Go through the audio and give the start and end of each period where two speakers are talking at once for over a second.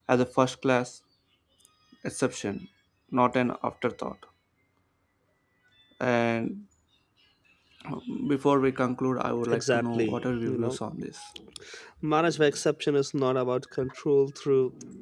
9.5-10.8

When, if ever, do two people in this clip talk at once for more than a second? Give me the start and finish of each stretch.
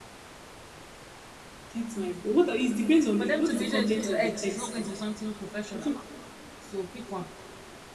3.2-4.9

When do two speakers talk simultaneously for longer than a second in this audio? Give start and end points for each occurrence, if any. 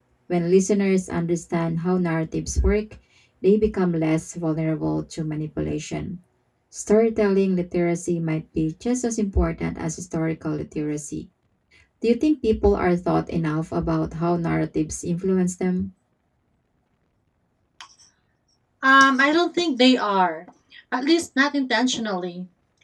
none

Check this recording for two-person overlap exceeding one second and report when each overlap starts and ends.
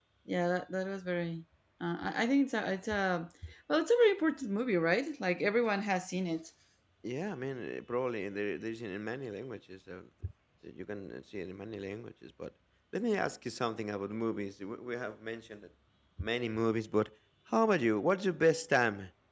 none

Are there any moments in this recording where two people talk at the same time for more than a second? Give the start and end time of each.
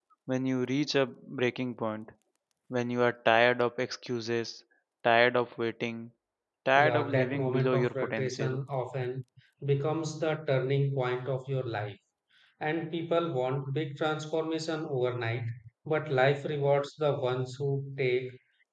6.8-8.6

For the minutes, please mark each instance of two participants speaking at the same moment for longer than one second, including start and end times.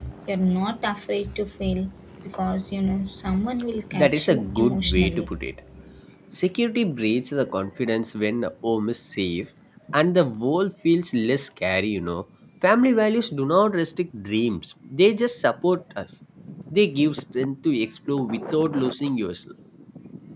3.9-5.3

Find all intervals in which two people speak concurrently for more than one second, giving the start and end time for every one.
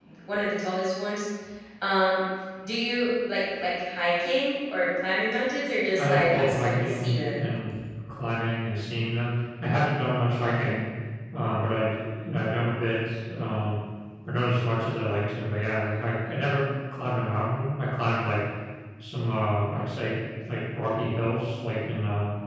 6.0-7.4

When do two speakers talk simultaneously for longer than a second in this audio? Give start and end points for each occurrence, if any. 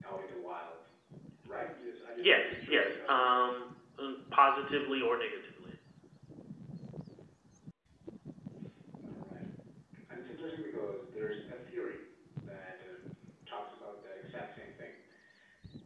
2.2-3.5

